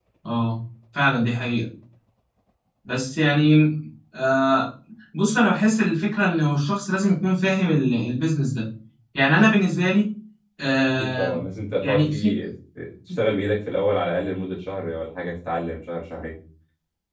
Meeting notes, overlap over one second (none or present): none